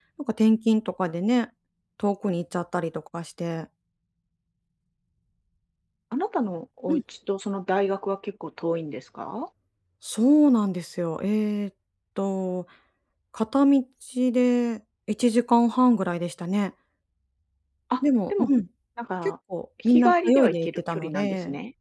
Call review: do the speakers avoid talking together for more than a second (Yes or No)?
No